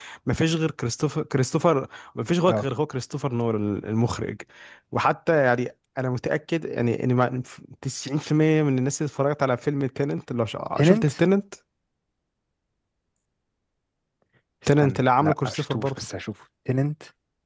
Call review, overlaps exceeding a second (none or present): present